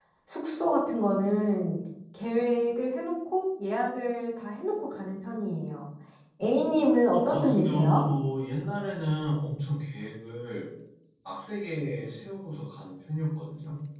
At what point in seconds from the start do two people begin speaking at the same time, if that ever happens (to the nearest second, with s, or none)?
7 s